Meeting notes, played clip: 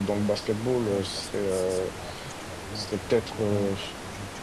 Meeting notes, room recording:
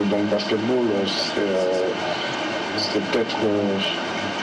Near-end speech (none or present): none